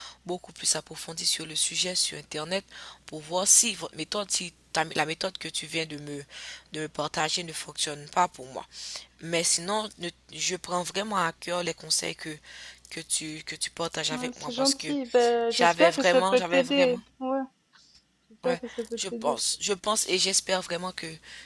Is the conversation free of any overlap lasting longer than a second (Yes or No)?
No